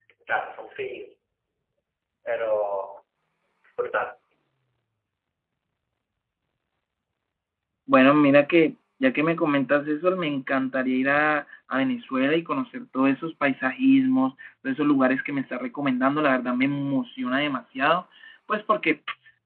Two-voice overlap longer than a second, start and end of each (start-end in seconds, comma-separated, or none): none